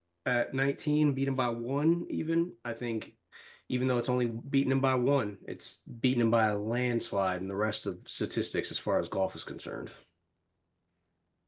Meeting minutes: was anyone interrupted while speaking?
No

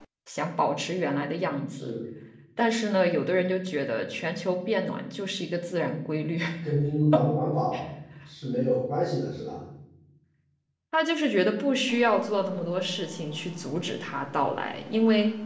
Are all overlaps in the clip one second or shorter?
Yes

